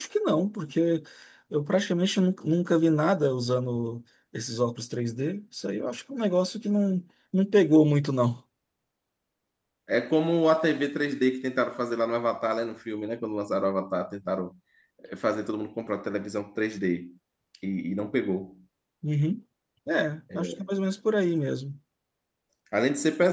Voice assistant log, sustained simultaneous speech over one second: none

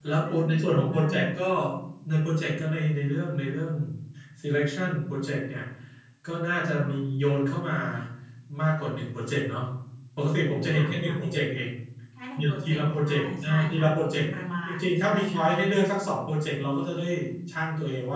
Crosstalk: present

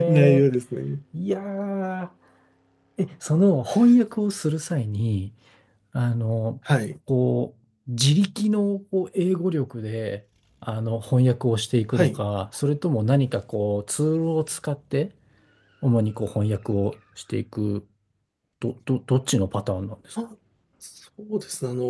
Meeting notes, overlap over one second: none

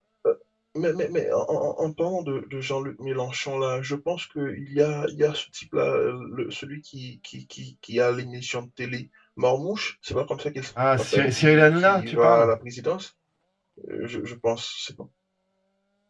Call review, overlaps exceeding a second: present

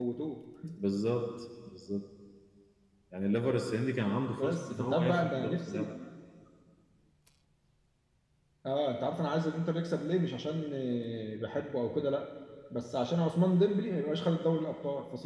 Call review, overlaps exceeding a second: present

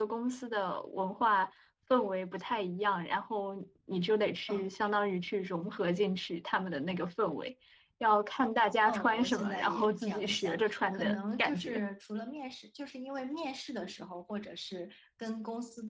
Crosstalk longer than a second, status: present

